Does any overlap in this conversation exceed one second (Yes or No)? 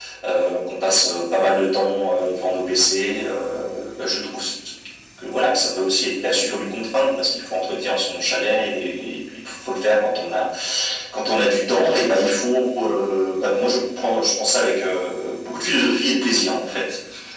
No